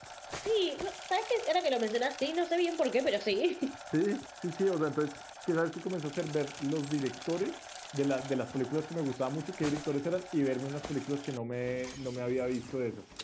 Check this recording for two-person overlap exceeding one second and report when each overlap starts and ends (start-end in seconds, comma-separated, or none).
none